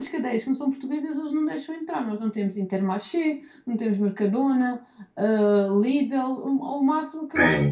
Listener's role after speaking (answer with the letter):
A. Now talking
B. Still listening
A